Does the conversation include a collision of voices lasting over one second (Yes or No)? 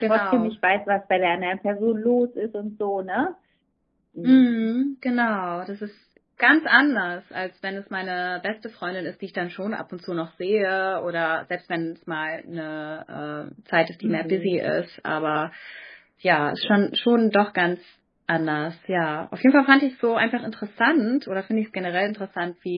No